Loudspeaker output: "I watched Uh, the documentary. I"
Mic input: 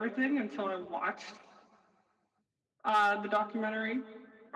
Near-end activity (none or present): none